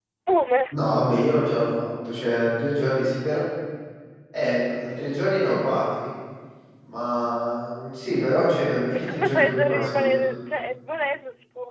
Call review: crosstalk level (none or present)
present